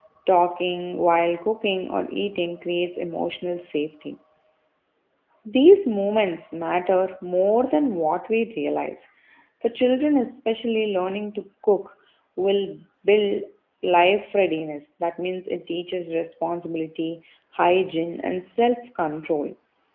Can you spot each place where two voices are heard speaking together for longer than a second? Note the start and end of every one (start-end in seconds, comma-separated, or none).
none